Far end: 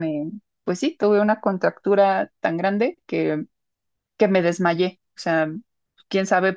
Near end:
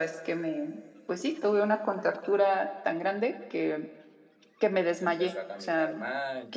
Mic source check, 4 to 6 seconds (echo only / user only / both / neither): both